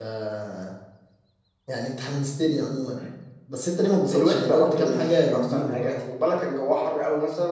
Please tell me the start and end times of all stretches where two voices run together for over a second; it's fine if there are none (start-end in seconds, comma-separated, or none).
4.1-5.9